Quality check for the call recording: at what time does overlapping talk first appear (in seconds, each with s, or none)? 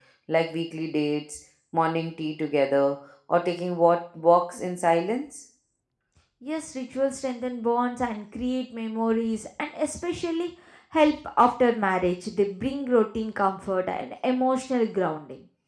none